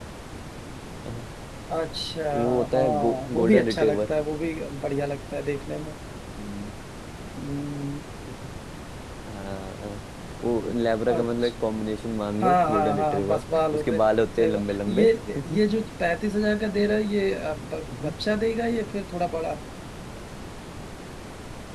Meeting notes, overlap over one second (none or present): present